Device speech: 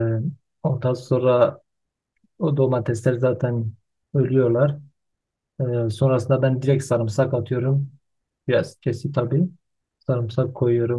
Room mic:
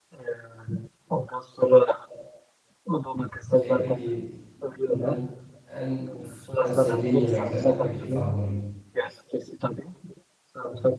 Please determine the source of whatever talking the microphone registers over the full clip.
both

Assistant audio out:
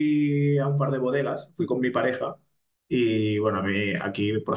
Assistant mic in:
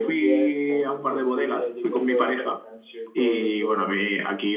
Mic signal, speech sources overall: both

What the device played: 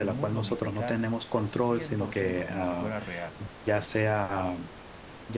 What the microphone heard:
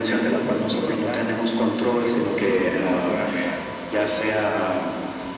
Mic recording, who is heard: echo only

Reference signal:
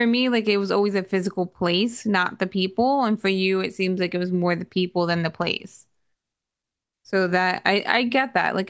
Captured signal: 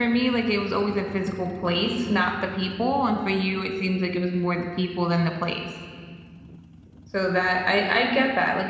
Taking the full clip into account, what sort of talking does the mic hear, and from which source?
echo only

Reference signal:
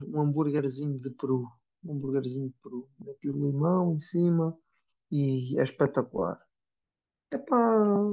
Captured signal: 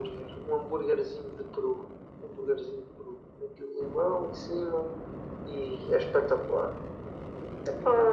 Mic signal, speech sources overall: echo only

